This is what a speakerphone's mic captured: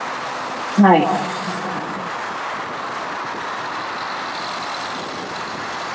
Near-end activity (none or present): present